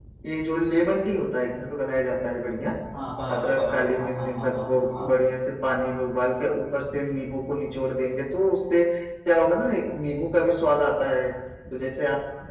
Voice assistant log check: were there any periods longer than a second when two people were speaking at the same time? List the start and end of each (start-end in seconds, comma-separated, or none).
3.3-5.0